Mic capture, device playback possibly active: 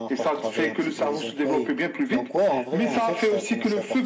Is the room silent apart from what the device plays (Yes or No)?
No